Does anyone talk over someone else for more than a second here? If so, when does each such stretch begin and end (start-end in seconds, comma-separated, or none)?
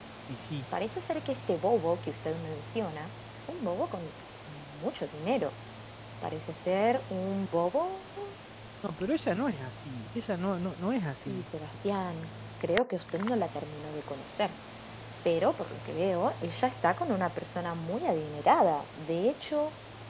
none